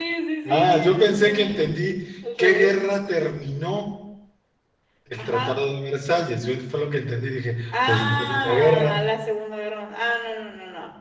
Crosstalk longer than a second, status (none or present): present